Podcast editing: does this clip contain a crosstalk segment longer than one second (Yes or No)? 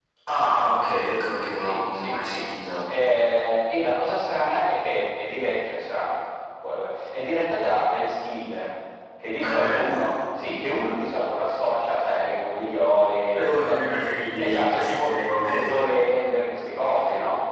Yes